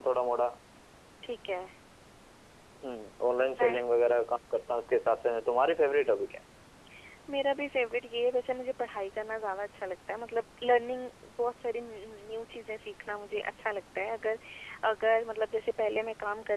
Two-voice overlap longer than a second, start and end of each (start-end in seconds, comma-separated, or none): none